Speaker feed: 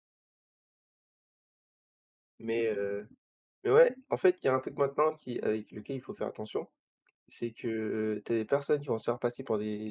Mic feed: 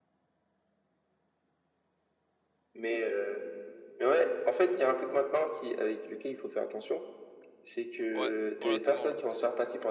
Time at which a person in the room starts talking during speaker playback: 8.1 s

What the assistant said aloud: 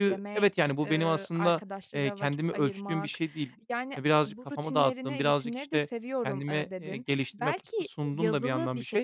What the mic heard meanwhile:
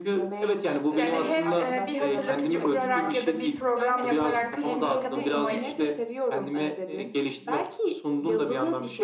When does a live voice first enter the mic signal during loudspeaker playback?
1.0 s

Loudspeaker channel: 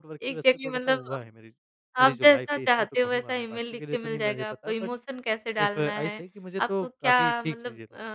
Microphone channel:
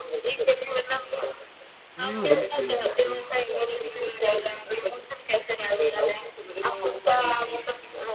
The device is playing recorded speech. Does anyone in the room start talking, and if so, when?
2.0 s

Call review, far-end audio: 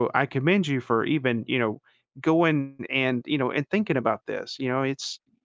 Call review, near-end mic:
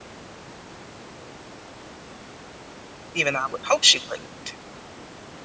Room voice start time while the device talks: 3.1 s

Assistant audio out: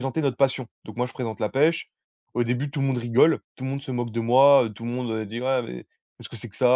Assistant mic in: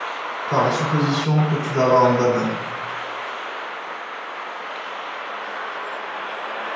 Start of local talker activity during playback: 0.5 s

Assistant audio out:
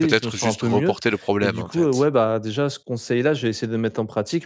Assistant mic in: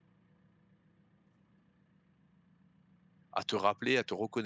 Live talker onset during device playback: 3.3 s

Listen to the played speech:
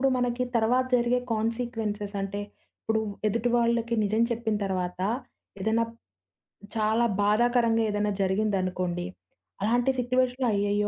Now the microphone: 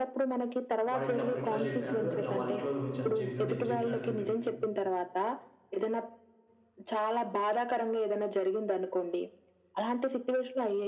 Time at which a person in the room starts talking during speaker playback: 0.9 s

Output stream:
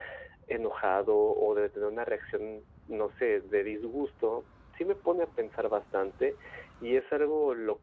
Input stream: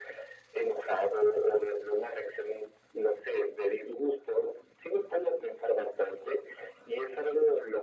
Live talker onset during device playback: none

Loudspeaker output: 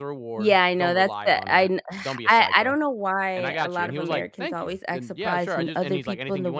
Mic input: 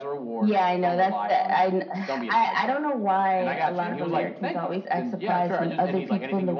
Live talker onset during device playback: none

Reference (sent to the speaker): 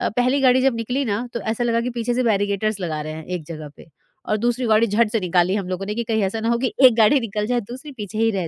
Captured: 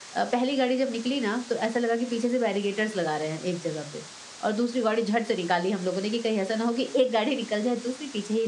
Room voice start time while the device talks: none

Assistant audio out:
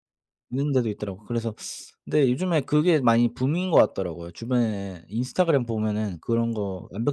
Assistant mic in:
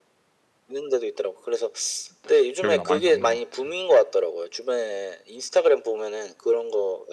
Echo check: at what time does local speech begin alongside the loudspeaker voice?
2.2 s

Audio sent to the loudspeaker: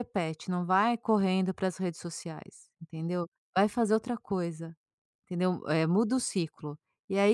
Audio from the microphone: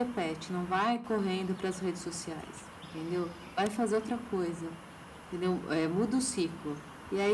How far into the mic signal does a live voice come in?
none

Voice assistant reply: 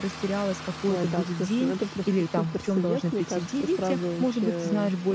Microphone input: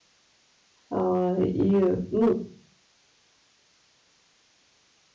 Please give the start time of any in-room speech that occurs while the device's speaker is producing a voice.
0.9 s

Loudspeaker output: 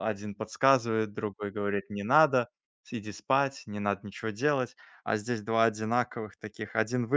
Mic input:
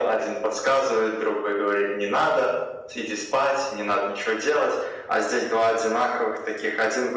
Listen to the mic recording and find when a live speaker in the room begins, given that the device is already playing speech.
none

